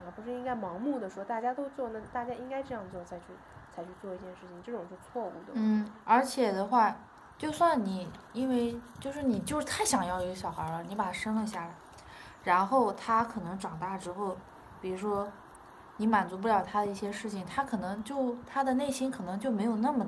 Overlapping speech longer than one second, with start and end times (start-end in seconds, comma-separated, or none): none